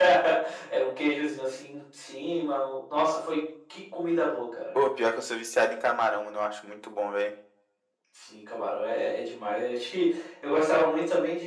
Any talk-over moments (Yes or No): No